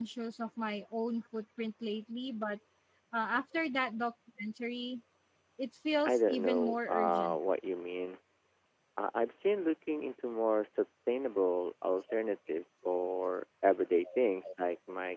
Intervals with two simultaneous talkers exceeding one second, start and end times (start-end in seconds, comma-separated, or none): 6.0-7.4